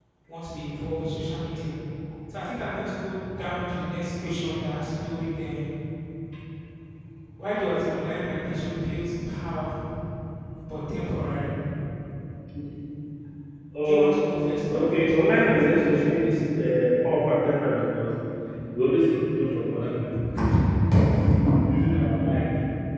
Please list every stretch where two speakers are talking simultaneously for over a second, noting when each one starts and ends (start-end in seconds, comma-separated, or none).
14.7-16.3